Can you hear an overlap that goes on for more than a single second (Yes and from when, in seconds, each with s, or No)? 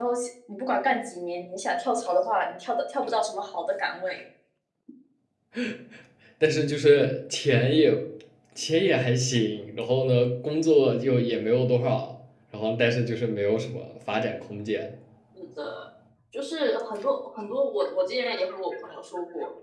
No